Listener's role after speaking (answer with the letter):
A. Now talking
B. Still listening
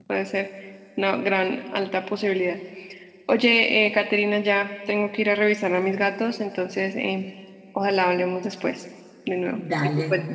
A